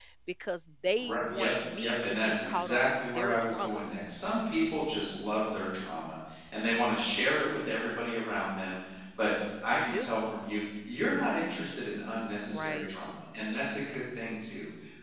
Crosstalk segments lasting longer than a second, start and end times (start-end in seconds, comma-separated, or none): 1.0-3.8